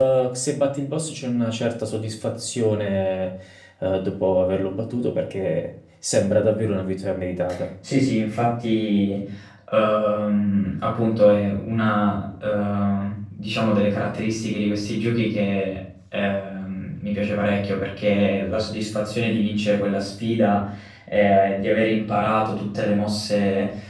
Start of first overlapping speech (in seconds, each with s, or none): none